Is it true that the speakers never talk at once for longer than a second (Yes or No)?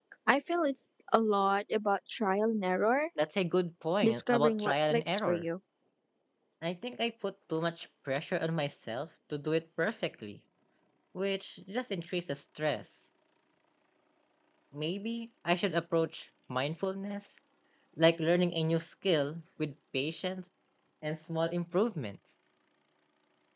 No